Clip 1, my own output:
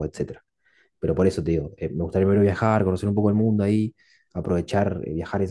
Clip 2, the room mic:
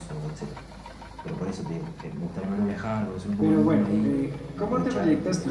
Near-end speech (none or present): present